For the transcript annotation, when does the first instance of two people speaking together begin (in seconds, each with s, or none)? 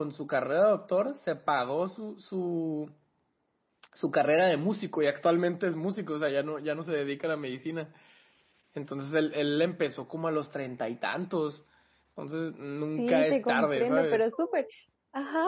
13.0 s